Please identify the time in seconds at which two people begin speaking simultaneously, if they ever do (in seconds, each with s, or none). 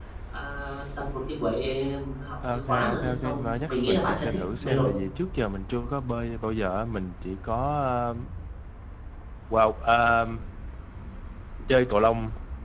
2.7 s